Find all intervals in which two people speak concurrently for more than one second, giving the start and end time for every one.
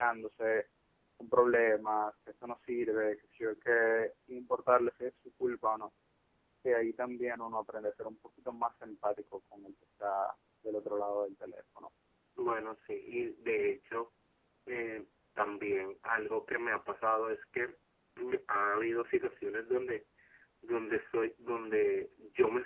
none

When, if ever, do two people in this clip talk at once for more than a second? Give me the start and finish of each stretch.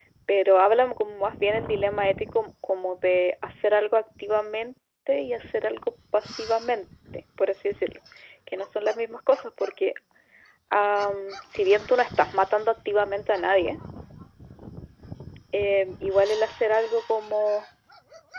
none

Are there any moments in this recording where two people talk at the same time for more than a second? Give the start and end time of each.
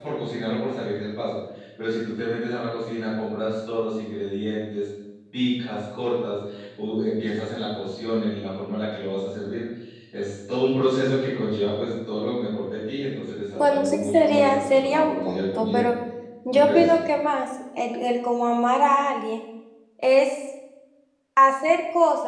13.6-15.8

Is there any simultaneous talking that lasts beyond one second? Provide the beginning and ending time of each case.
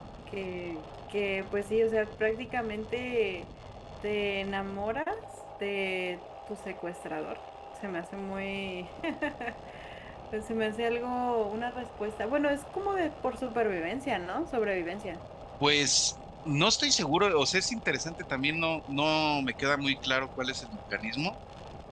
none

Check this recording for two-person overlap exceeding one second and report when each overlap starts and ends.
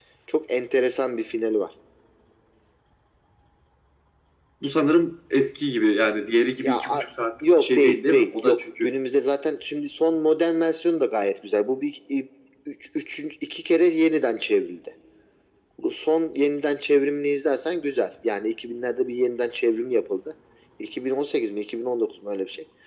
7.6-8.9

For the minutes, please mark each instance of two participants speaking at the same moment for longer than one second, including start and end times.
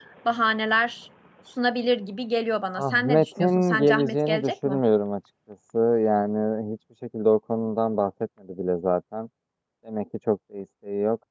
2.8-4.8

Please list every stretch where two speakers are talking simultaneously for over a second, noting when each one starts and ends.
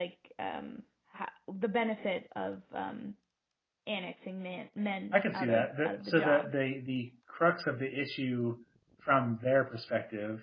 5.1-6.5

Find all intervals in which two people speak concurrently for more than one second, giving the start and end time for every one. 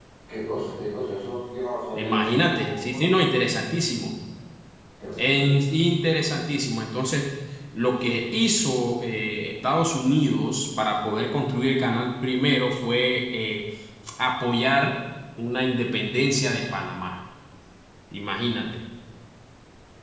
1.9-3.1

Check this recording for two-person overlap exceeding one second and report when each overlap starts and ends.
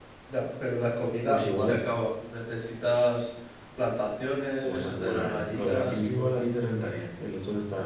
4.7-6.5

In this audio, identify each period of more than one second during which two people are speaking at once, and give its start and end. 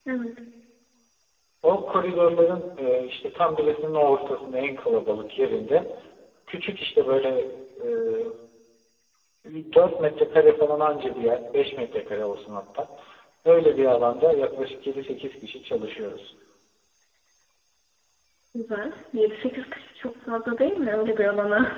none

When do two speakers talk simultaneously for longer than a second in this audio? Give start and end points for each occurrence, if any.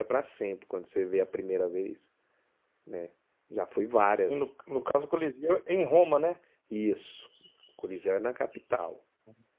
none

